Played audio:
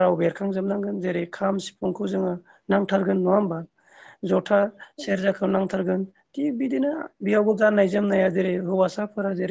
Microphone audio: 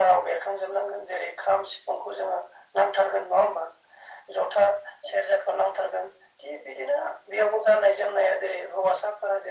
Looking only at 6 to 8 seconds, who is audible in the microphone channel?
echo only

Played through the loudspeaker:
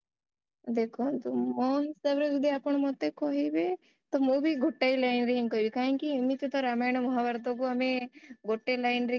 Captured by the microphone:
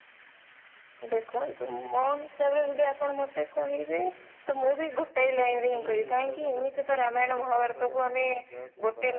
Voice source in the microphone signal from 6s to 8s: both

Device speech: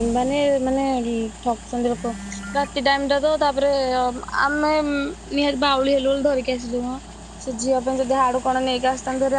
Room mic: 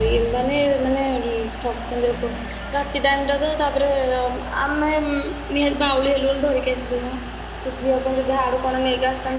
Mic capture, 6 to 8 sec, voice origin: echo only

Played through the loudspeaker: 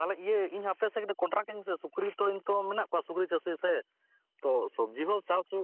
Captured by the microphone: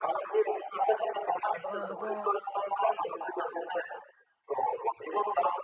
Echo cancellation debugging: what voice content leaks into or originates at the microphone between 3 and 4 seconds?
echo only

